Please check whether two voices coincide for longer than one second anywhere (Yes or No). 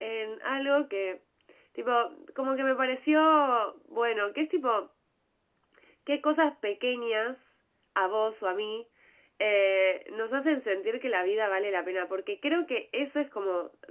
No